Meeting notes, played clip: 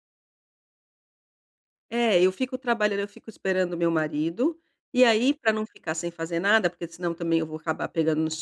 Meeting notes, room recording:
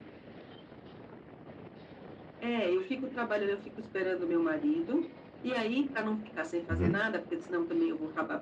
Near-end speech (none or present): present